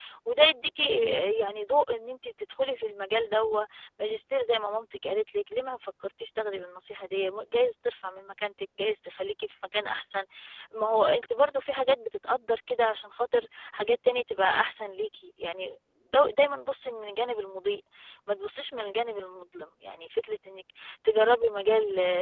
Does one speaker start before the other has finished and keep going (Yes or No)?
No